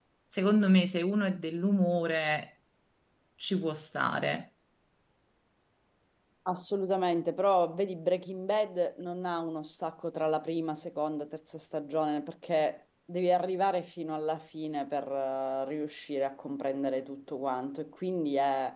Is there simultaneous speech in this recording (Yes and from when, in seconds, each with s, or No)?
No